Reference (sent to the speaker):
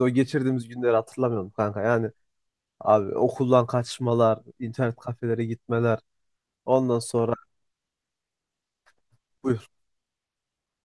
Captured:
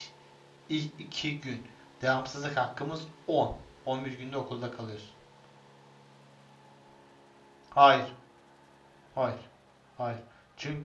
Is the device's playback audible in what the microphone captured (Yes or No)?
No